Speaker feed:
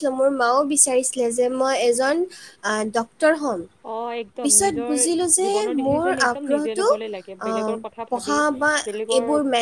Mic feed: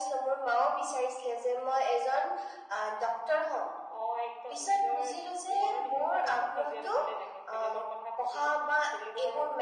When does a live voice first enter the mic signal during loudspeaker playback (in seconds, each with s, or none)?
none